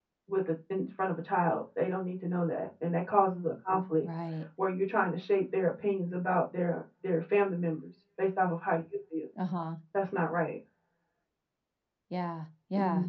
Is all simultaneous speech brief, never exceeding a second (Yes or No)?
Yes